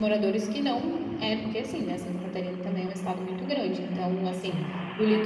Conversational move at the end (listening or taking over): listening